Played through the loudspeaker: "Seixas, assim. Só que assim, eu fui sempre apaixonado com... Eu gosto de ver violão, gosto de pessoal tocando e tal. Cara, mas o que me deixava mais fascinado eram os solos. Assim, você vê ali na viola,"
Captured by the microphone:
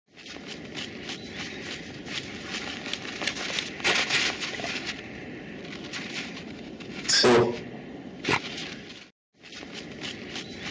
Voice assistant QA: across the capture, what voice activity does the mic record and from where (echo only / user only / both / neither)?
user only